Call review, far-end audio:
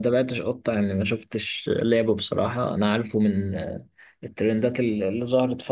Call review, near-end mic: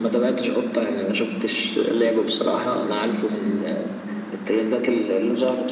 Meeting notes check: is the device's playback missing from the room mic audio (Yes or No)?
No